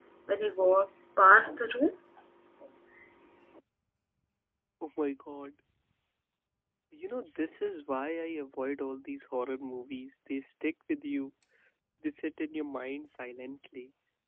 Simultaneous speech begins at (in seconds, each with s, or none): none